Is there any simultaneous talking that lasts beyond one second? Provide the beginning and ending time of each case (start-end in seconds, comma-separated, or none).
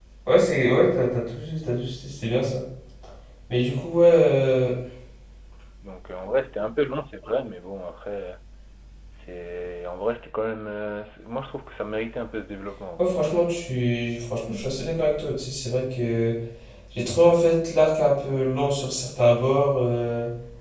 none